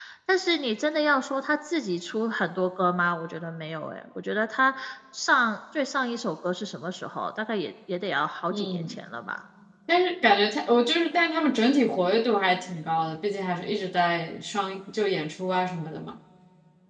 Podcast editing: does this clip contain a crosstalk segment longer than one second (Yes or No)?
No